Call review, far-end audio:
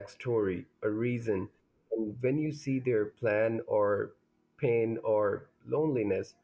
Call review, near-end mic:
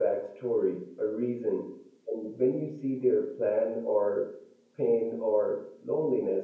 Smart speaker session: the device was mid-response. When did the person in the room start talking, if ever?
none

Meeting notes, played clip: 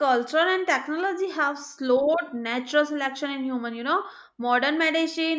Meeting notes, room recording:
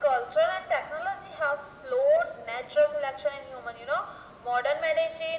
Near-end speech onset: none

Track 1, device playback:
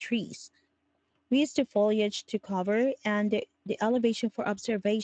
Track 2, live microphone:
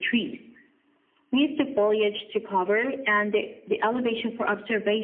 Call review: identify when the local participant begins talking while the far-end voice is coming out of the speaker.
none

